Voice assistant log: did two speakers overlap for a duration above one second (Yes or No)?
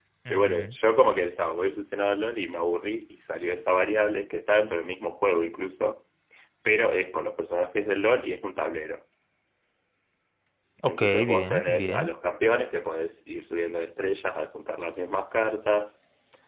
Yes